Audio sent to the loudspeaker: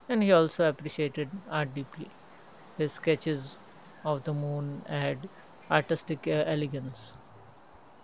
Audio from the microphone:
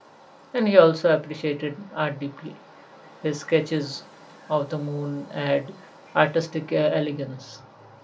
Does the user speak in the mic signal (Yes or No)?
No